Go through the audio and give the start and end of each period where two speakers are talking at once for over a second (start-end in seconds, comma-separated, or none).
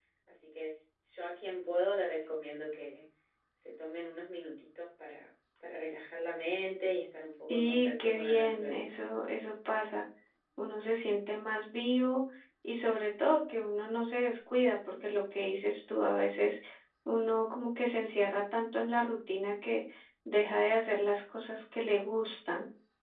7.5-8.9